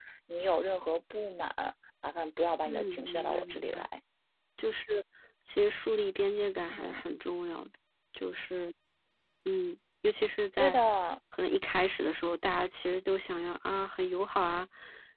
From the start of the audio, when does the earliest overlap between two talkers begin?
3 s

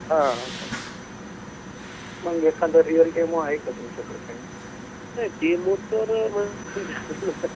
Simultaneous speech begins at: none

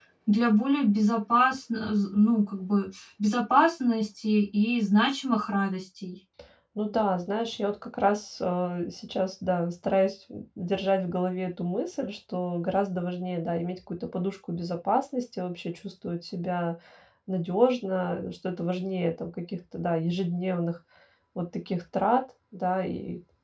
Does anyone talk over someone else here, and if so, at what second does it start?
none

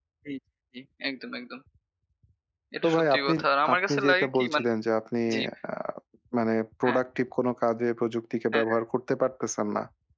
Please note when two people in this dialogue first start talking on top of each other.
3 s

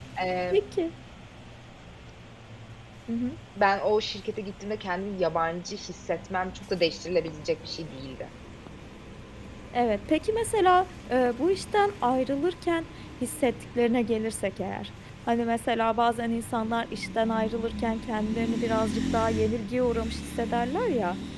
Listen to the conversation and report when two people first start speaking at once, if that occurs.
none

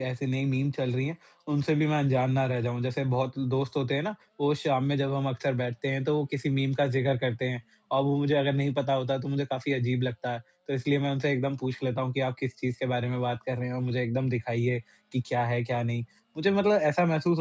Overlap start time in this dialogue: none

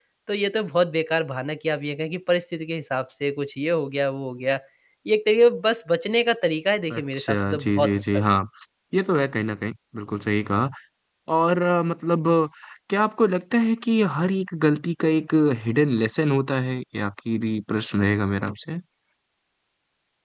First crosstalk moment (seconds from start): 7 s

